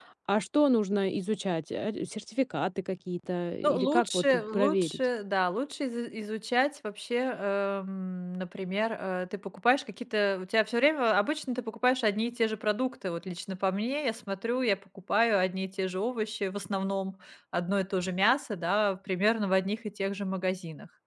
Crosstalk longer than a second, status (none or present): present